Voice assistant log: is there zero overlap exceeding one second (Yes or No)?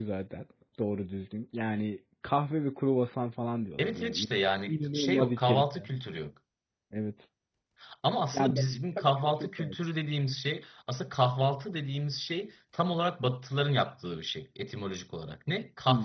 No